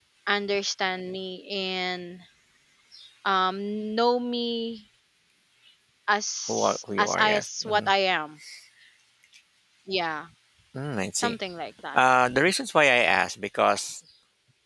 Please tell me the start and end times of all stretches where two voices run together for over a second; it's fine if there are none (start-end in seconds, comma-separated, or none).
6.5-7.9